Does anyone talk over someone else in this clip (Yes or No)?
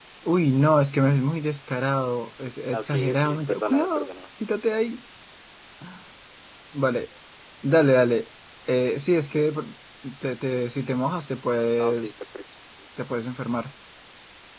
Yes